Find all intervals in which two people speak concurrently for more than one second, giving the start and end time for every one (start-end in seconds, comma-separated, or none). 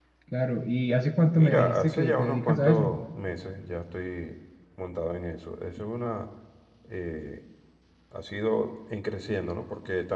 1.3-2.9